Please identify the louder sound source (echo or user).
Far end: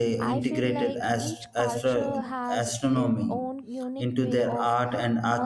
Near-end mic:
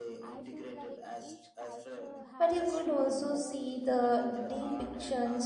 user